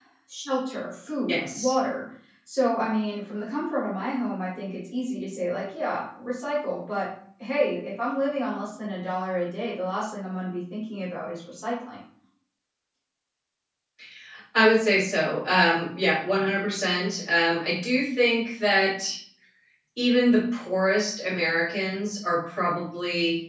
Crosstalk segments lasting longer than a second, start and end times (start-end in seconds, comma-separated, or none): none